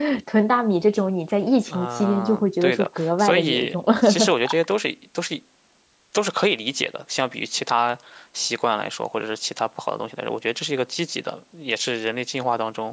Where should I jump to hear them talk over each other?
1.7 s

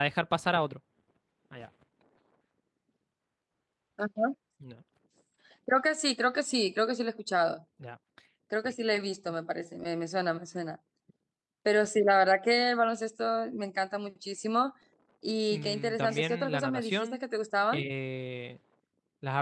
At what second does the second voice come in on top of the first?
15.5 s

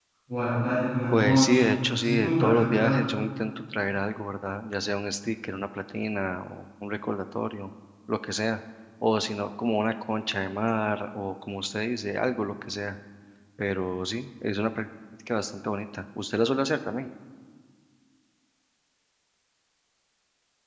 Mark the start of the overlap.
1.1 s

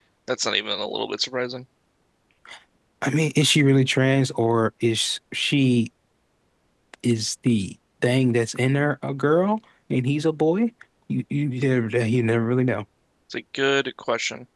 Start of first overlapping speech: none

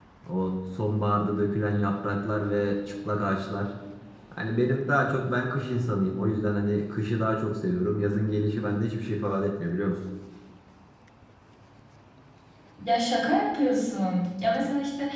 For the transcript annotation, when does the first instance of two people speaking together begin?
none

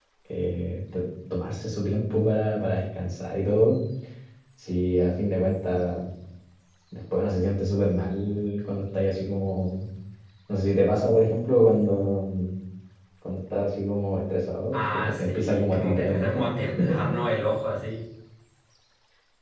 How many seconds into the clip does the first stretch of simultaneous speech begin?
14.7 s

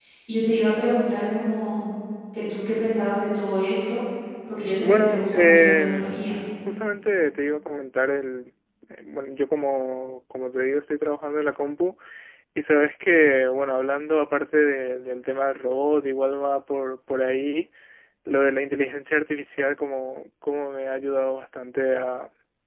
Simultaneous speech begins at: 4.8 s

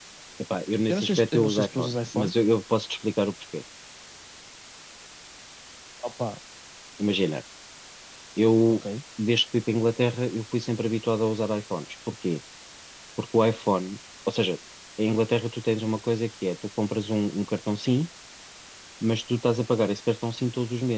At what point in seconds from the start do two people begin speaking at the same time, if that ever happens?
0.9 s

